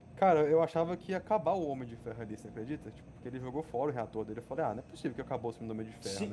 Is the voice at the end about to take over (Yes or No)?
Yes